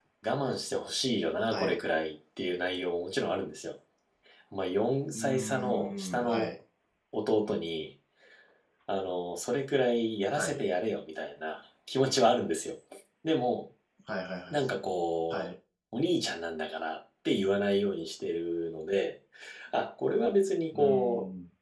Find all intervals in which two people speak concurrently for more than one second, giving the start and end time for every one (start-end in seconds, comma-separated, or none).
5.1-6.5